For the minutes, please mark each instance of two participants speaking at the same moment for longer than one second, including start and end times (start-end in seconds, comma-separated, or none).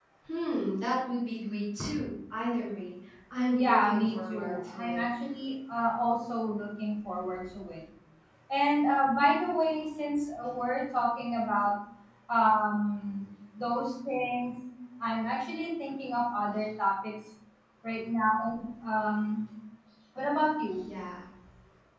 3.5-5.0